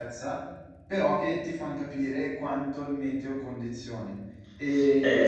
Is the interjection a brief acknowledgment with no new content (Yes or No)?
No